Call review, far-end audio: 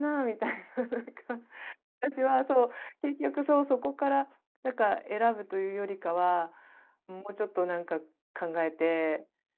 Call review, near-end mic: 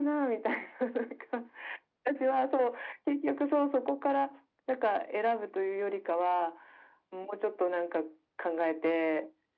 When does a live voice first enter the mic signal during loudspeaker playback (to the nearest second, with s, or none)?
none